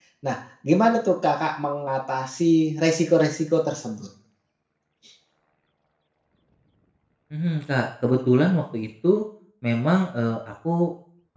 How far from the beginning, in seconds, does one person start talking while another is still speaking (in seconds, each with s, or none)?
none